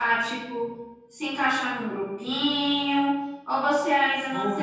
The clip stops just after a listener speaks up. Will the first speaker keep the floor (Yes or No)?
No